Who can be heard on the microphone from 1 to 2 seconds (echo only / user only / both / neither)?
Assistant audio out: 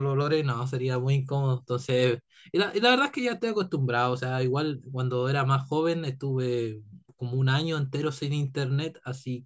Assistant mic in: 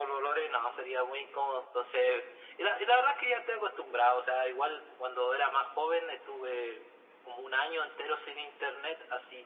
echo only